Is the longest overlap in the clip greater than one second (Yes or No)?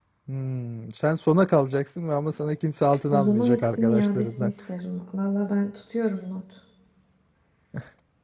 Yes